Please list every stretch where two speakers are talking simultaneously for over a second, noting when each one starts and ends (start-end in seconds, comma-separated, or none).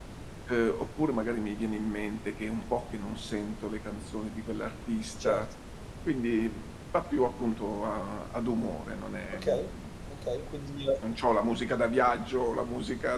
none